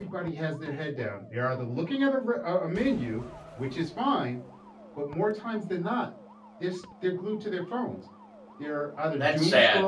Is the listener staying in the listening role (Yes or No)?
Yes